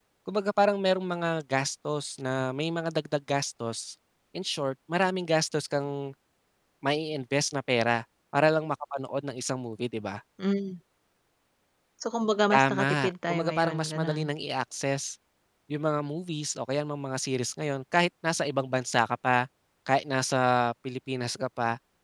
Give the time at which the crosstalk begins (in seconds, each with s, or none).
12.5 s